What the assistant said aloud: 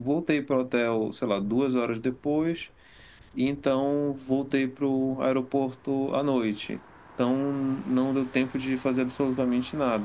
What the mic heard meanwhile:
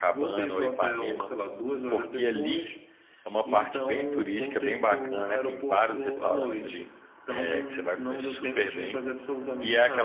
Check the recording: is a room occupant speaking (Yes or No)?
Yes